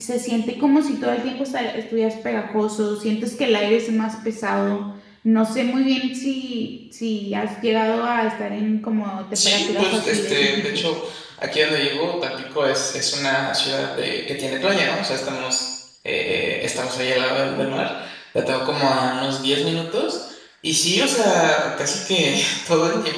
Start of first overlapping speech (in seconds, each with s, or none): 9.3 s